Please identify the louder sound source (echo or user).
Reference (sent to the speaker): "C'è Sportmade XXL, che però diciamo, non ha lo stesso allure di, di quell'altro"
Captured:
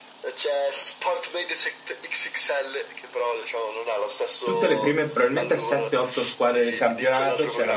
user